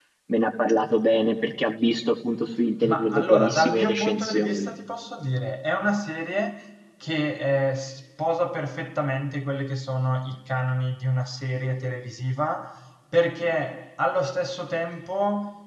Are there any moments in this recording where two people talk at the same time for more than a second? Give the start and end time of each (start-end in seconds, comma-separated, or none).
2.8-4.7